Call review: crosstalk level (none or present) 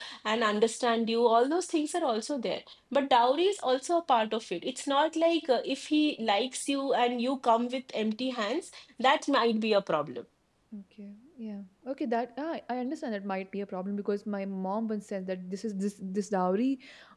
none